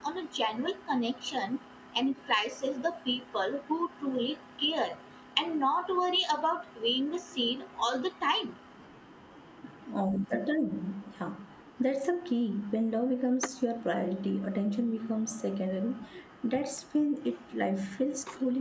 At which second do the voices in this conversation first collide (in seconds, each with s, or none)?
none